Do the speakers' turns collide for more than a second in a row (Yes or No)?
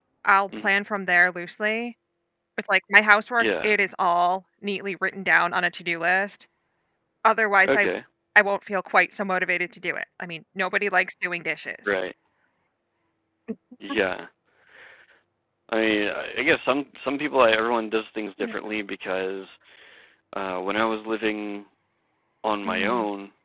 No